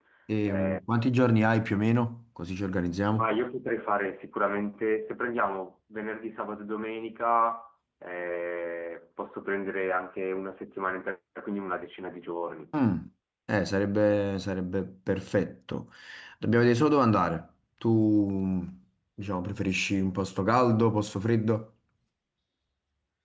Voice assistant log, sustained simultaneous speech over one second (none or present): none